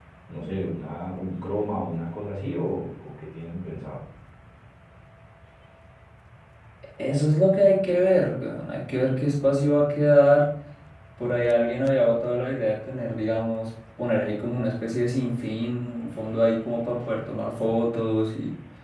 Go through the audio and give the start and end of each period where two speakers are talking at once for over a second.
none

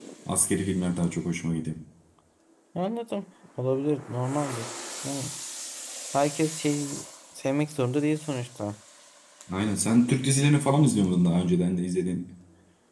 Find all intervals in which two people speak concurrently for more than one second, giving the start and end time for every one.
none

